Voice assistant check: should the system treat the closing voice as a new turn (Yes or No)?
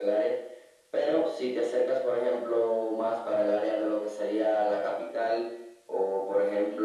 No